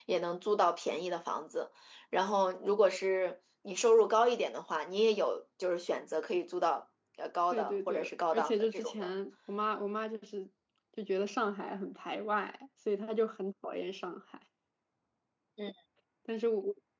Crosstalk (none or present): present